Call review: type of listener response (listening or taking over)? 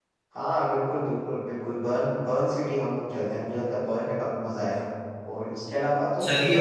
listening